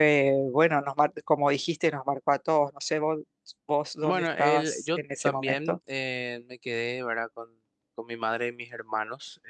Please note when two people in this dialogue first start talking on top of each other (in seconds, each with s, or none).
4.0 s